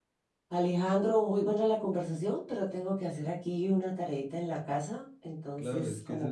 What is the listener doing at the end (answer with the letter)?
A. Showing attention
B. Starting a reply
B